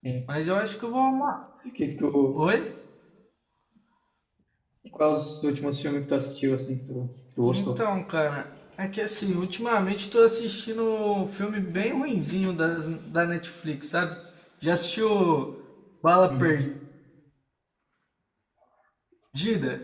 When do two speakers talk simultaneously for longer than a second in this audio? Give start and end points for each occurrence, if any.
none

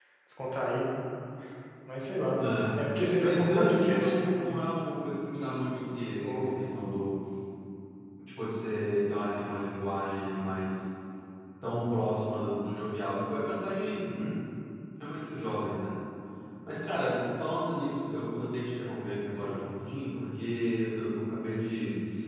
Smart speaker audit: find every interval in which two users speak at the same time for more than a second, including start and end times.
3.2-4.4

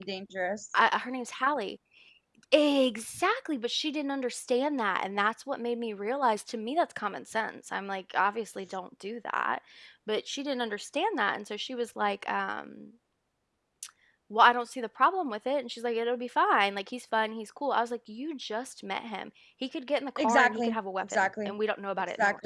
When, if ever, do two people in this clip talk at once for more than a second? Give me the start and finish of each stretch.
20.2-21.5

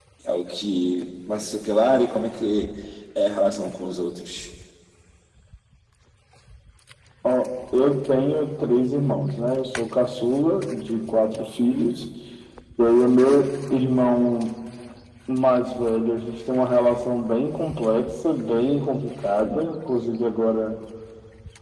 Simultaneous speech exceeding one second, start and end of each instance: none

